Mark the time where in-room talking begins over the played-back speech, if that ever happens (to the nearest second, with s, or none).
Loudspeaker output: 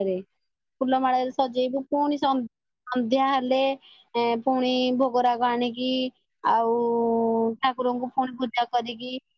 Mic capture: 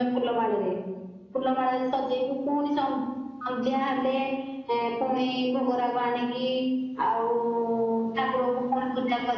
none